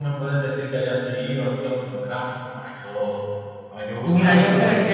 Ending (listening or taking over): taking over